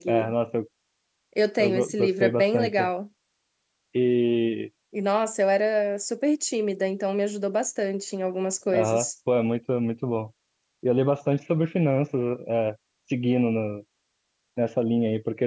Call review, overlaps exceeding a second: present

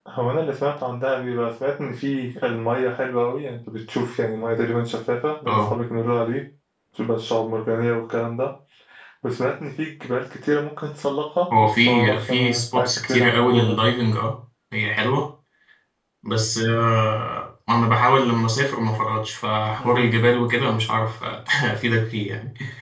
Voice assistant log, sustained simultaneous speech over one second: present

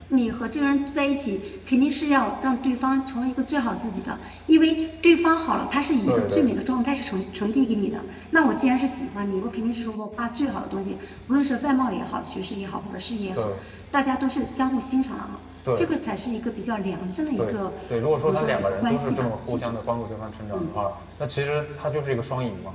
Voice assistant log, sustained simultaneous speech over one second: present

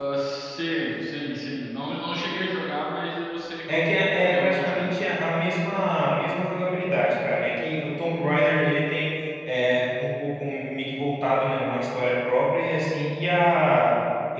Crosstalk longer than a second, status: present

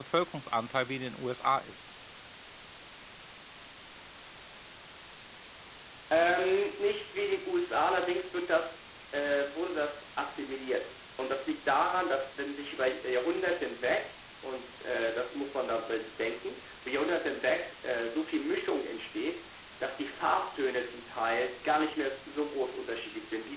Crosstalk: none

